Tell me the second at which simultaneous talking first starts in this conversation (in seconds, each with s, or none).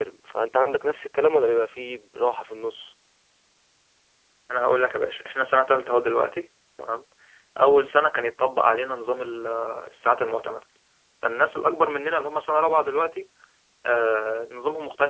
none